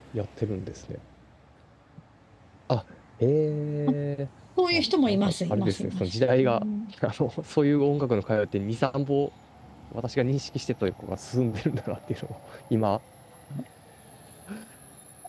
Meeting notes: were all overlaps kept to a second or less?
No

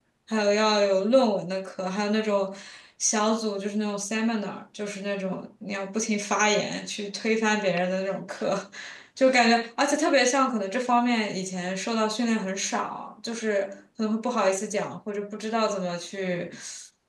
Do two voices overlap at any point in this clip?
No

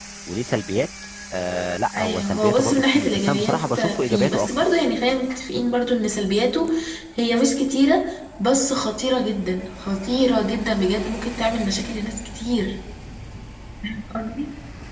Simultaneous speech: Yes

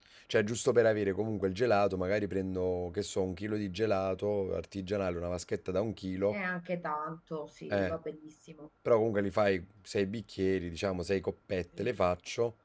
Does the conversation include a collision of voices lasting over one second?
No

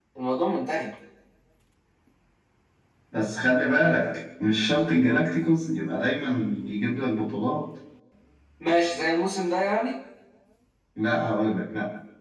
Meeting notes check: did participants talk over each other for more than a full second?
No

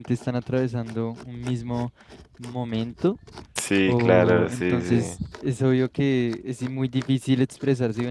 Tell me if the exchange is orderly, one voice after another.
No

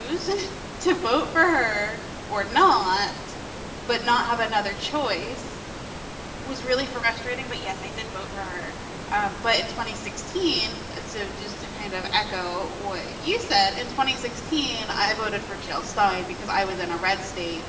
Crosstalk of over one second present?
No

